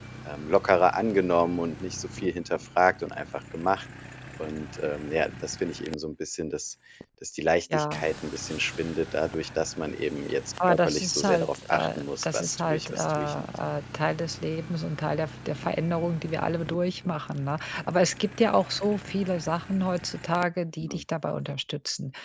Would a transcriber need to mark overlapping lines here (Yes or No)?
Yes